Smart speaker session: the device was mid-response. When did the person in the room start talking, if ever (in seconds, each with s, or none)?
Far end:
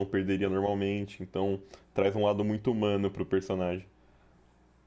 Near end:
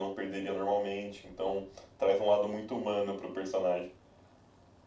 none